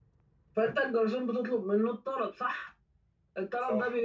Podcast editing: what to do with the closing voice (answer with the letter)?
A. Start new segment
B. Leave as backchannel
B